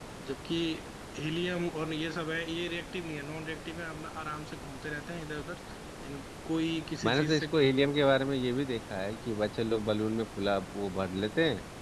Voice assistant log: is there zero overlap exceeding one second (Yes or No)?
Yes